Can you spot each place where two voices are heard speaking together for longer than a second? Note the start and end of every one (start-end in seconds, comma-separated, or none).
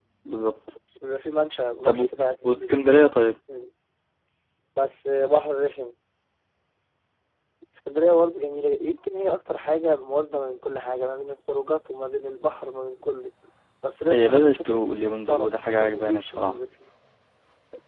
14.1-16.6